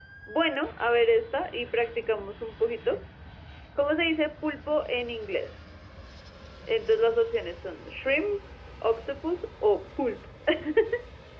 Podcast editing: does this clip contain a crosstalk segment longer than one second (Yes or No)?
No